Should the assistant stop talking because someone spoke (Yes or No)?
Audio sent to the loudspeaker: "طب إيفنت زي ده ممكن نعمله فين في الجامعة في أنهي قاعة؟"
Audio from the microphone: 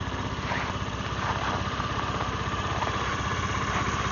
No